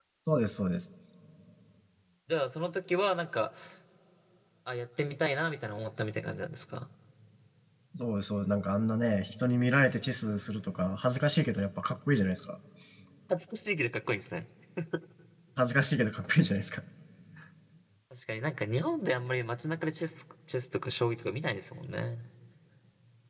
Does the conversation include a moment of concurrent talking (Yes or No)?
No